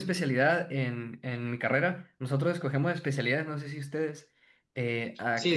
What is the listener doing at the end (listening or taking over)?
listening